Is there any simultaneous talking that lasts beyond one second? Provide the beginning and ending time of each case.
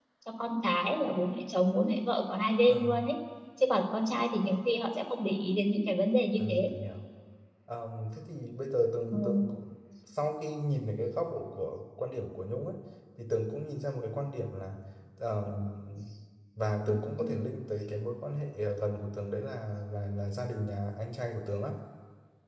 none

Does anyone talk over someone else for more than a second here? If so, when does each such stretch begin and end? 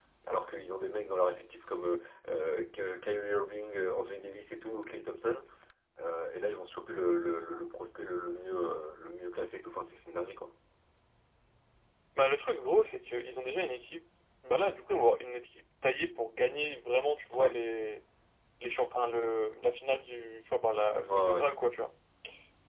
none

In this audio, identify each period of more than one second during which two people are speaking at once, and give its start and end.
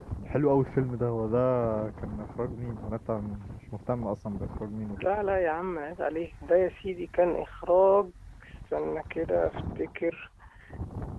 none

